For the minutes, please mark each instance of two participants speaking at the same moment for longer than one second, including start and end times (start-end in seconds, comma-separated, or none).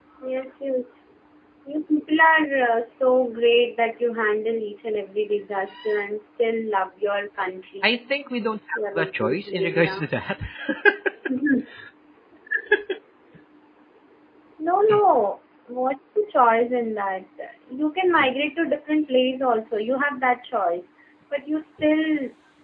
8.8-10.1